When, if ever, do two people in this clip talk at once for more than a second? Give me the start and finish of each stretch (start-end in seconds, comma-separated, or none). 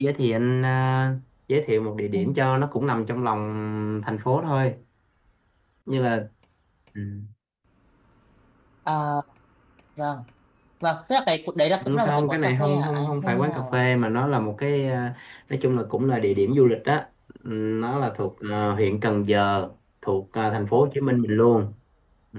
11.8-13.8